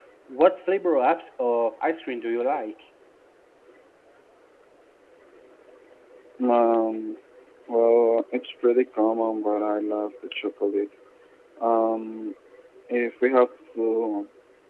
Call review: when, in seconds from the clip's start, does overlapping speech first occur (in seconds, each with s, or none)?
none